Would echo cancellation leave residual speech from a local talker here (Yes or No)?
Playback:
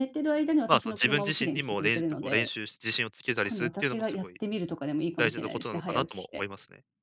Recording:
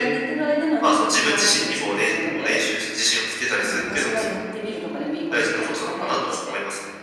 No